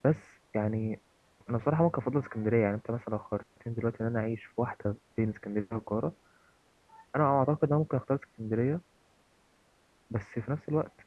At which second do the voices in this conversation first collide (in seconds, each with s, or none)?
none